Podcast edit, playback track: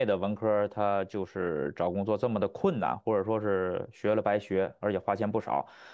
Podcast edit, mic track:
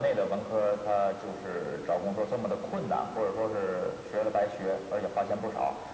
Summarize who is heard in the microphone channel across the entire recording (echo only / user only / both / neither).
echo only